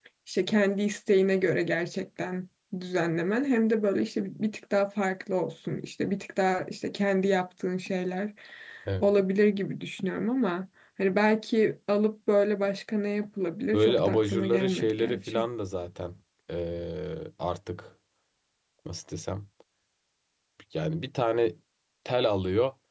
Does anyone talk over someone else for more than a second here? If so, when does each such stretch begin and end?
13.7-15.5

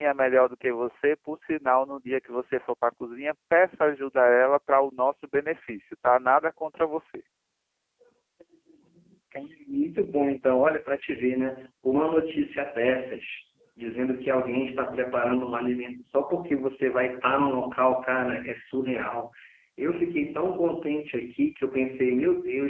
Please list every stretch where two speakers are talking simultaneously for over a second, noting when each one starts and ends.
none

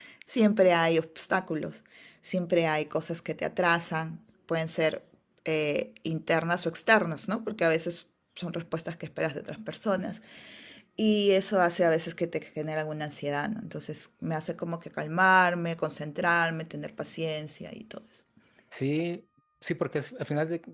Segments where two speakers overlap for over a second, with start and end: none

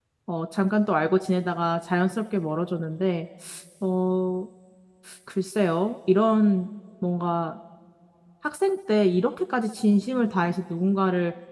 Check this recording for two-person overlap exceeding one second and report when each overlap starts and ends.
none

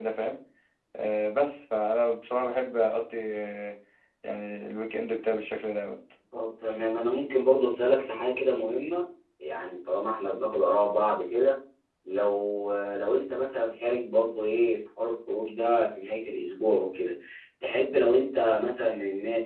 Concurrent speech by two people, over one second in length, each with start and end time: none

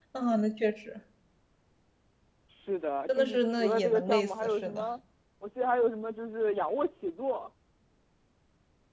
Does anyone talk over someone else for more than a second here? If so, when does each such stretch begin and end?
3.2-4.9

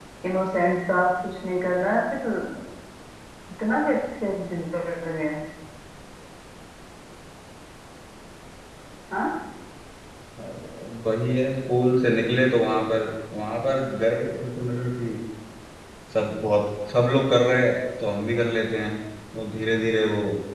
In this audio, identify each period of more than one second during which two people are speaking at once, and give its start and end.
none

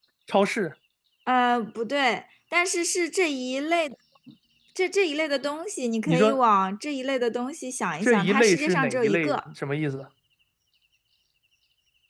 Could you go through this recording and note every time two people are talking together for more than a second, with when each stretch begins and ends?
8.0-9.4

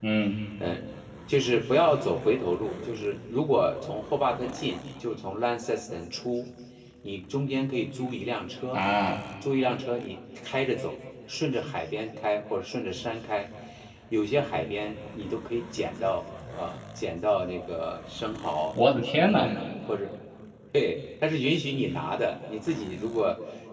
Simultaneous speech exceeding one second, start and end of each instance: none

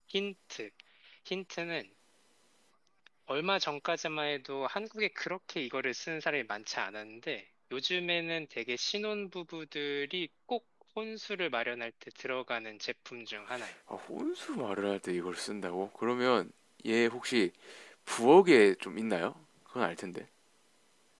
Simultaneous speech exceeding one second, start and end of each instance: none

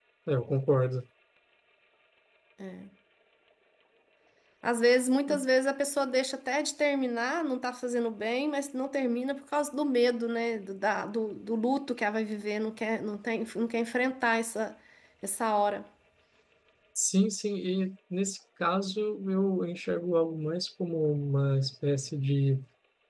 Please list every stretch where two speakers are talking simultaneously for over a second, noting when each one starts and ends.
none

